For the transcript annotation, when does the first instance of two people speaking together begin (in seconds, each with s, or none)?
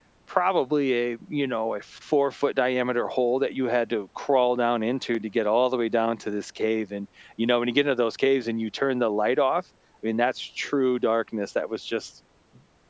none